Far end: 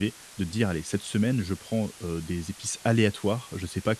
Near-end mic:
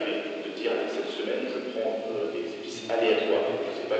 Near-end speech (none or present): present